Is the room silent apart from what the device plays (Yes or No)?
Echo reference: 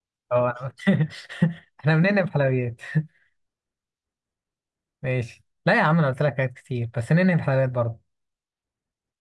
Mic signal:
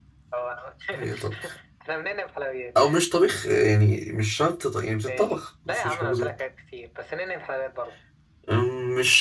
No